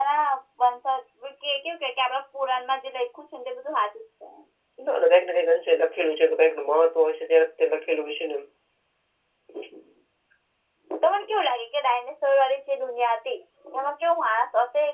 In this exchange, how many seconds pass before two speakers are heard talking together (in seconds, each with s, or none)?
none